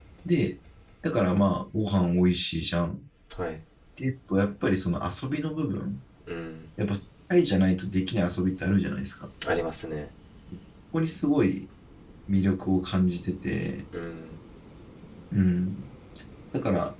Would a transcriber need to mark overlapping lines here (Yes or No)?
No